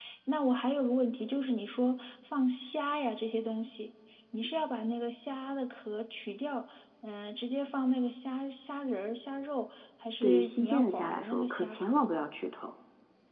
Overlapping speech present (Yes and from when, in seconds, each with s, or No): Yes, from 10.2 s